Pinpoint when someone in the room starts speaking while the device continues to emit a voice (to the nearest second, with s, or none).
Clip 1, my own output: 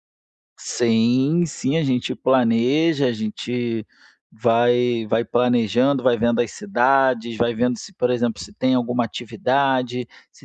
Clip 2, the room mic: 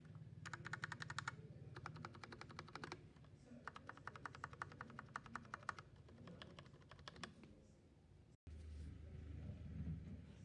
none